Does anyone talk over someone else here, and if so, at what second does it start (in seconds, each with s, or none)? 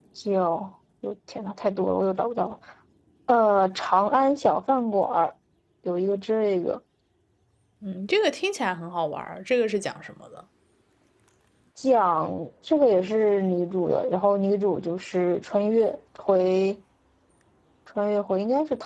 none